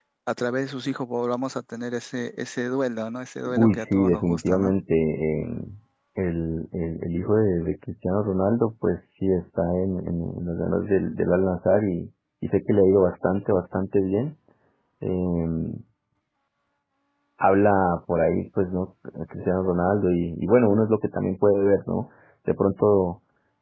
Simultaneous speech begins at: 3.5 s

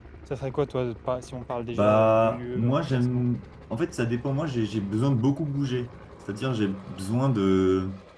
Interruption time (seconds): 1.7 s

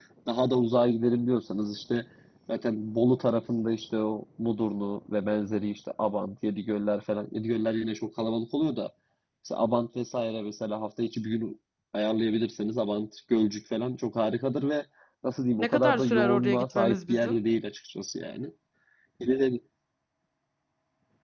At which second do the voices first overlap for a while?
15.6 s

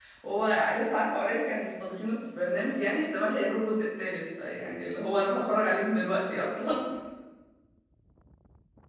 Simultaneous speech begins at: none

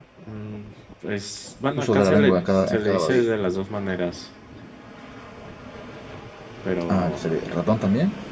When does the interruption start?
1.8 s

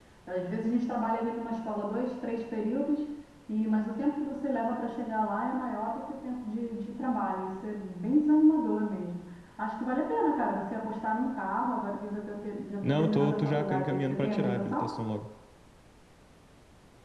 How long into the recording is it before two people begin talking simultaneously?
12.8 s

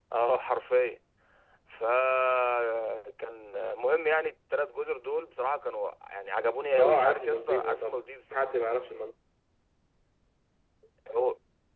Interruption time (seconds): 6.8 s

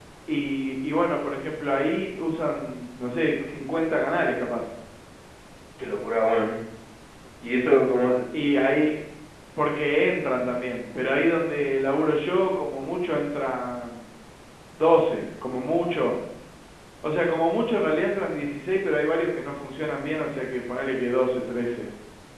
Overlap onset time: none

